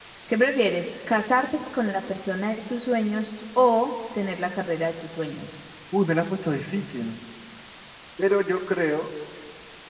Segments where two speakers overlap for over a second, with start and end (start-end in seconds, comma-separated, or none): none